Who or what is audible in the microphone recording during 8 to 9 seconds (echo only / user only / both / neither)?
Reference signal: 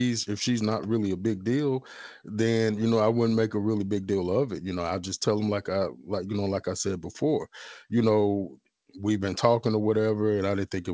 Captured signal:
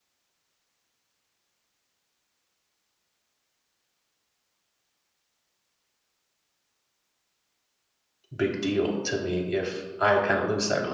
user only